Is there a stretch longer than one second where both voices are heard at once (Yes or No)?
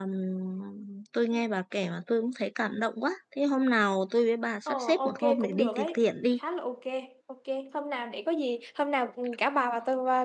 Yes